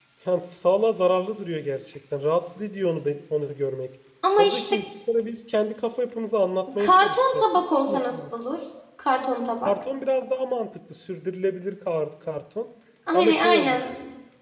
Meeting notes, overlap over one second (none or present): present